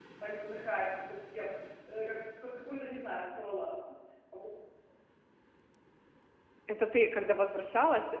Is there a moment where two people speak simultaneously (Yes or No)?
No